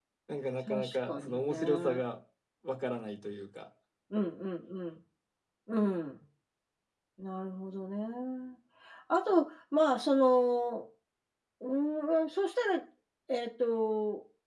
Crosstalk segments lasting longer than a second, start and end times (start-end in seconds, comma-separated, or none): 0.7-2.0